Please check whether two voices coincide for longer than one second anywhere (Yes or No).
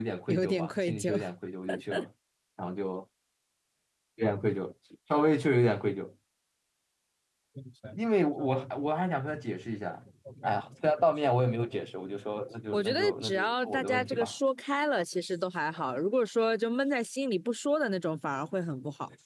Yes